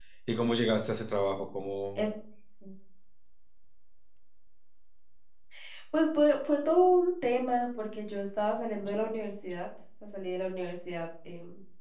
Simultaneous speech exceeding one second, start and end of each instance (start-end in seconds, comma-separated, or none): none